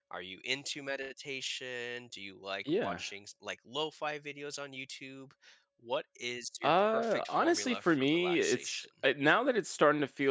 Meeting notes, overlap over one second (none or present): present